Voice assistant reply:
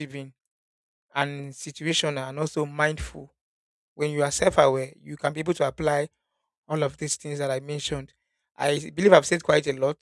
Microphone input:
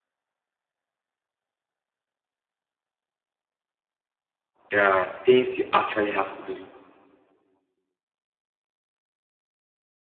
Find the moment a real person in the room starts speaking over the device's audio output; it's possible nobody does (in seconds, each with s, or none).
4.7 s